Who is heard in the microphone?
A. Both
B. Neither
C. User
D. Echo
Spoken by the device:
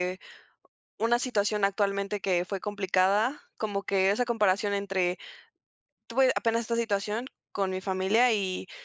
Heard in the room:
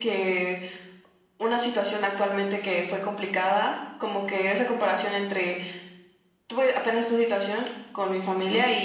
D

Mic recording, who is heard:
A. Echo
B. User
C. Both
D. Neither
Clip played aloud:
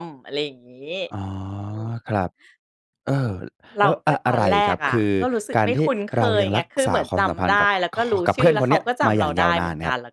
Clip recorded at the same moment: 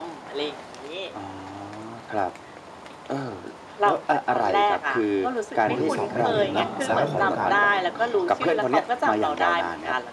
C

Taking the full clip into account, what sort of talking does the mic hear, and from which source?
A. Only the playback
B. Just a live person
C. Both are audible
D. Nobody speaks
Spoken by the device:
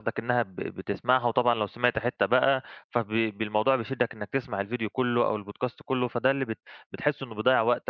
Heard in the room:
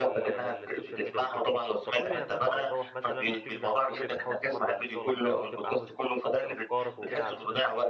C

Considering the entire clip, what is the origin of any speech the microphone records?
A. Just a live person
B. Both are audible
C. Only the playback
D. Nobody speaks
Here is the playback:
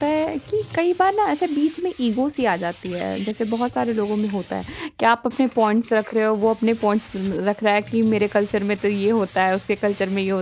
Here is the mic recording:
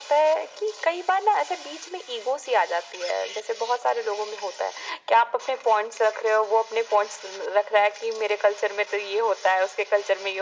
C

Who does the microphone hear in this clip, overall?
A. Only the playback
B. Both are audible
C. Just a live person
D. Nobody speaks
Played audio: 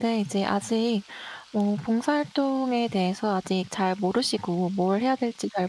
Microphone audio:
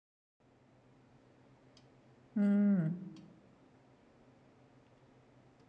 C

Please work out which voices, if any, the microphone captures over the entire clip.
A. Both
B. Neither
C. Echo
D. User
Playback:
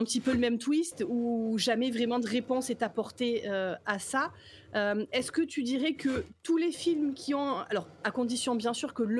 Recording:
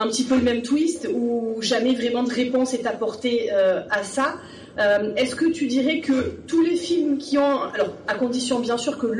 C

